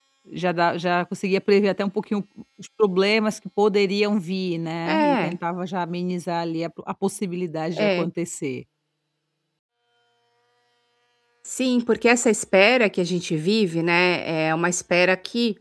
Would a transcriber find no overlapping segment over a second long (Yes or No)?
Yes